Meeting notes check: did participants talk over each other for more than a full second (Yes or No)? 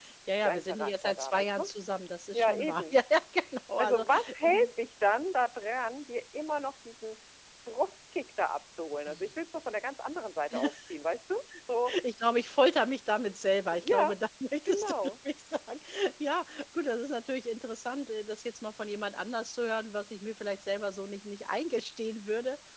Yes